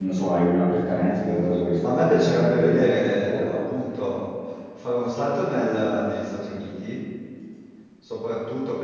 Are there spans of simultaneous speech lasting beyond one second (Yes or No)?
Yes